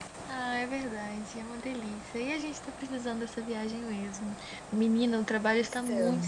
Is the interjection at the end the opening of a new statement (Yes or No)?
No